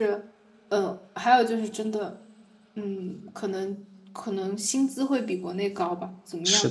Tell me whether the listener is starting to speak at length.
Yes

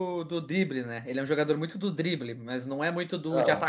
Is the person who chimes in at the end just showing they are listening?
Yes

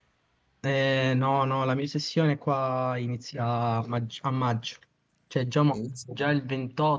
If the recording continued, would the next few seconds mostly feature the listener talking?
No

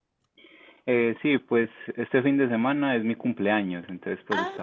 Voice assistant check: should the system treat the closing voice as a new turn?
No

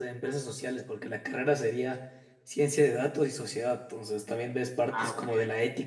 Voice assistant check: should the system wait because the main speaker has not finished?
Yes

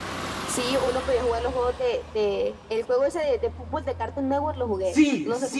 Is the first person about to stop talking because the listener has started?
Yes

